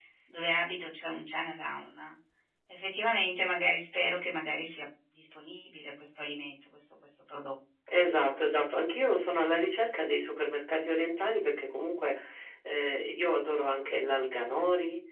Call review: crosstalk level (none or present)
none